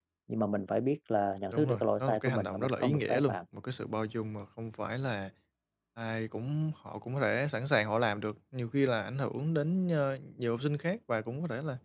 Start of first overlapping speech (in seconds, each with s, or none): 1.5 s